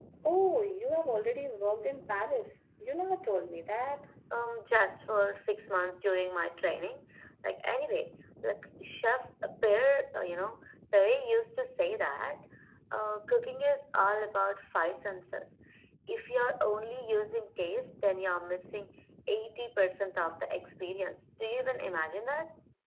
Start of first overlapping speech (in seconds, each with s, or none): none